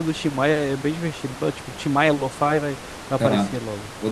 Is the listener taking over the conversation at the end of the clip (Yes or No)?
Yes